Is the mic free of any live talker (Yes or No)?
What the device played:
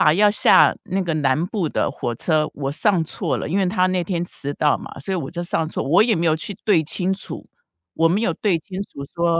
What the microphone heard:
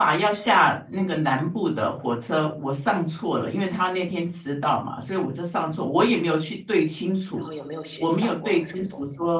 No